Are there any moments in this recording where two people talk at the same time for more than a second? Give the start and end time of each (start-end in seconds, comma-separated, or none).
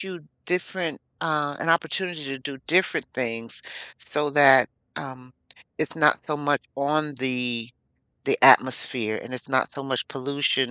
none